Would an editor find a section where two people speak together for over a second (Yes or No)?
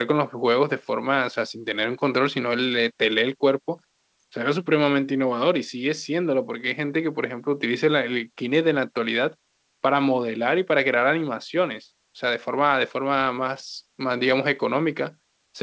No